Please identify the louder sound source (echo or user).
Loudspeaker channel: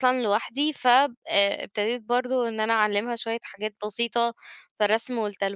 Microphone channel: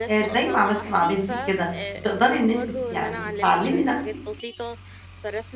user